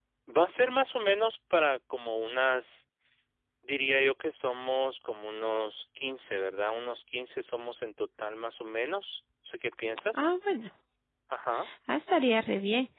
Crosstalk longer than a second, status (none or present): none